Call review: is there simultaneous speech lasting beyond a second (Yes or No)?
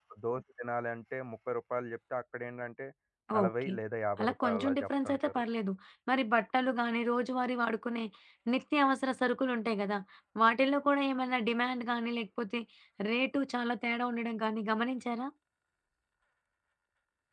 Yes